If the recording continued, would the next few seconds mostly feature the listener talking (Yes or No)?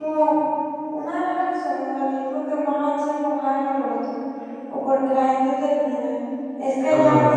No